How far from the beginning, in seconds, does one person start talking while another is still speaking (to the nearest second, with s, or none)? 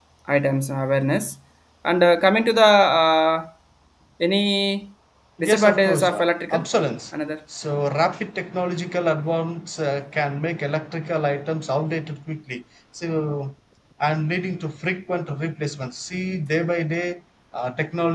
5 s